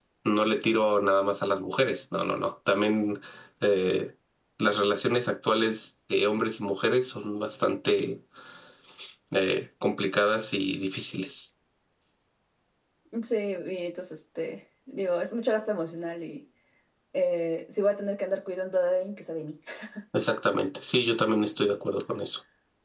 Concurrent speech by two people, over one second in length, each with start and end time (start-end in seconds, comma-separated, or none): none